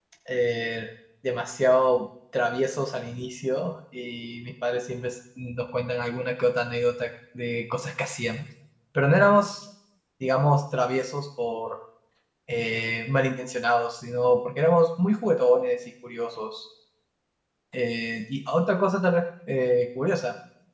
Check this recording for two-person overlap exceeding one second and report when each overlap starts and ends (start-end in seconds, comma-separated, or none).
none